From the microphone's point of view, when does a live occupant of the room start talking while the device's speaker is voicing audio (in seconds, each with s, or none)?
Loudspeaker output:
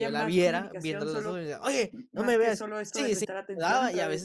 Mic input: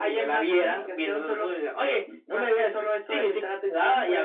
none